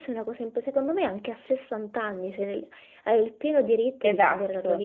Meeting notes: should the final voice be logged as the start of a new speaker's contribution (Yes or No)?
No